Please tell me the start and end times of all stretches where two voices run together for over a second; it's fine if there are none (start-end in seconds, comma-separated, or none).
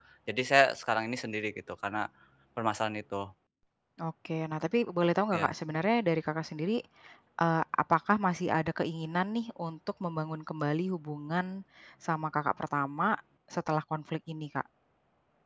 none